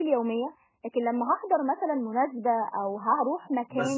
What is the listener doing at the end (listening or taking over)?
taking over